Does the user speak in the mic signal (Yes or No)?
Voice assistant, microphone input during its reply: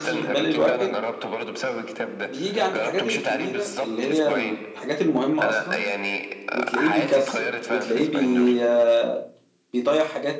Yes